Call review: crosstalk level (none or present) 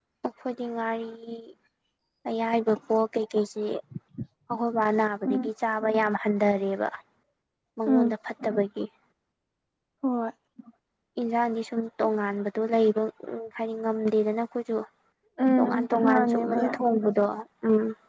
present